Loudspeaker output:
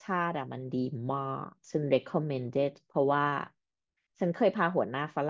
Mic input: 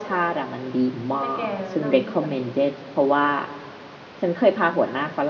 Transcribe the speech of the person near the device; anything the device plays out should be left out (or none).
ต้องให้แกแนะนำให้ฉัน